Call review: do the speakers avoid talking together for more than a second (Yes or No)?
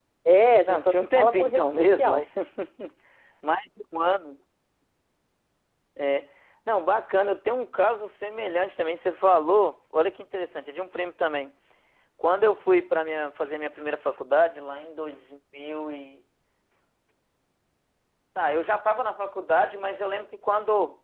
No